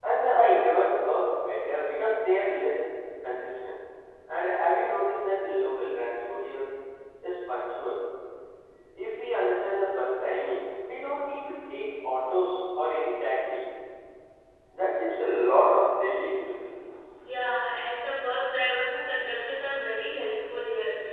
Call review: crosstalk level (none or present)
none